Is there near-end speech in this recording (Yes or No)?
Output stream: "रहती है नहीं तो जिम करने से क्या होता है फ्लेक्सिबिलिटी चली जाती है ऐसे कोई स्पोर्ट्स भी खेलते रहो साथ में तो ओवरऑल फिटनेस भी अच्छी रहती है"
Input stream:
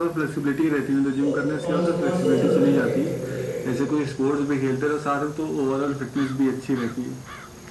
Yes